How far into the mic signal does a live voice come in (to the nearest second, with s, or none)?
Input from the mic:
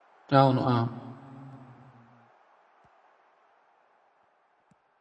0 s